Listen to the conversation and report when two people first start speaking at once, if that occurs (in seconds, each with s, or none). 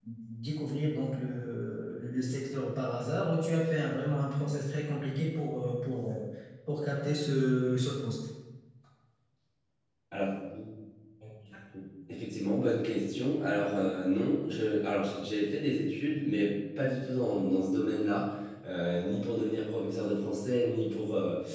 none